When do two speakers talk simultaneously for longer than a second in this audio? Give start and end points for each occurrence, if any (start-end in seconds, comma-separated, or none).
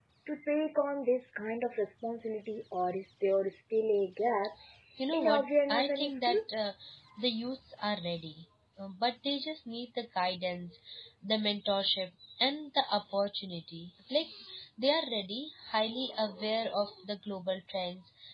5.1-6.4